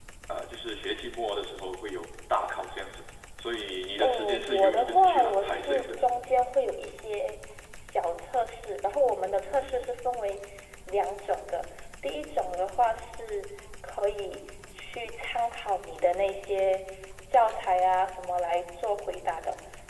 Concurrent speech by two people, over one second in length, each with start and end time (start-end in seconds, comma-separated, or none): 4.0-5.9